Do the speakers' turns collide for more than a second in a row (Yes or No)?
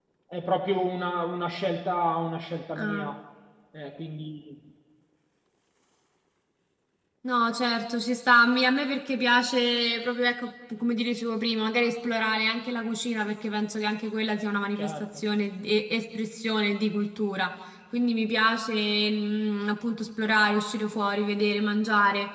No